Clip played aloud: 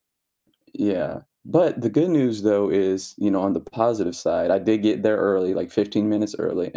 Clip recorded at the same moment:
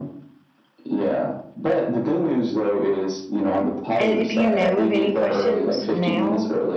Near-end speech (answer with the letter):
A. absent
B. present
B